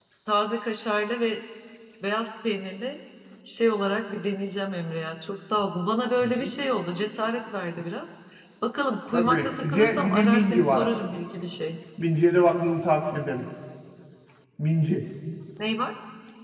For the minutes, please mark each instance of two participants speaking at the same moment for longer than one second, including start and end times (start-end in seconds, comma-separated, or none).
9.1-10.9